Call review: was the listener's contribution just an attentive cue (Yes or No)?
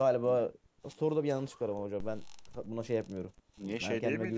No